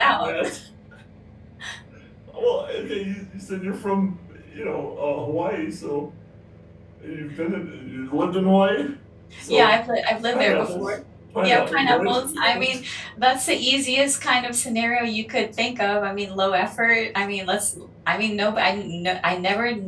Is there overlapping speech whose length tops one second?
Yes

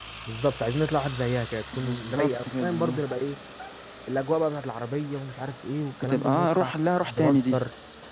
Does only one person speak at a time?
No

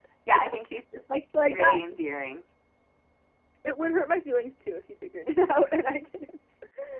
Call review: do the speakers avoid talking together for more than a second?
Yes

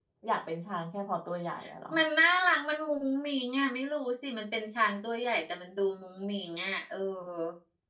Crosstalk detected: No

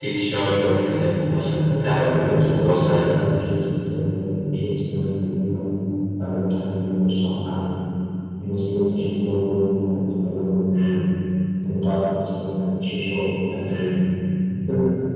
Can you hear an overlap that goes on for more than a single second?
Yes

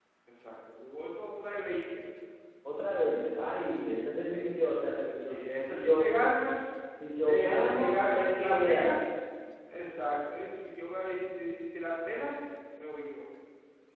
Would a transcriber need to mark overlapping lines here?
Yes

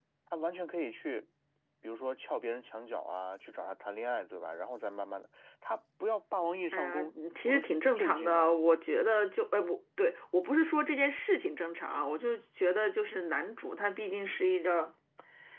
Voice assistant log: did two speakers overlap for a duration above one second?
Yes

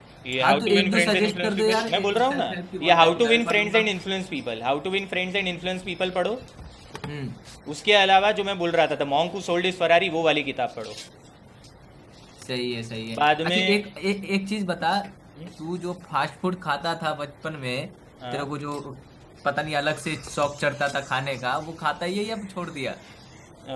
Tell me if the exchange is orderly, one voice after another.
No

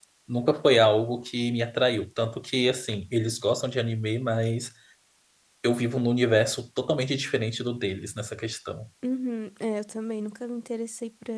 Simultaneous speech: No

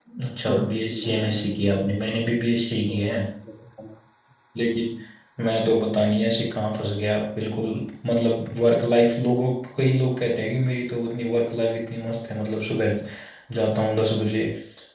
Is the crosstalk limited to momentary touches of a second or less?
No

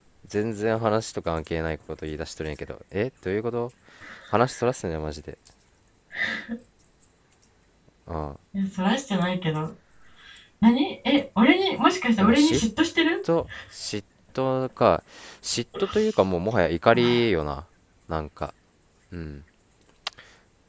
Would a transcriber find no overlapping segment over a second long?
Yes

